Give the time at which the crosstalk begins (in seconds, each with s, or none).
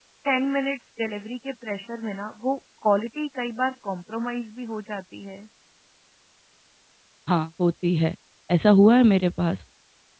none